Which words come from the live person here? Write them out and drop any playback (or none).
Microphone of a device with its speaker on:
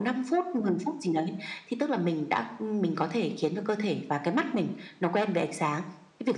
none